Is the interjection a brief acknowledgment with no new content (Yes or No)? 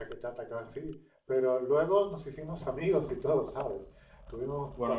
Yes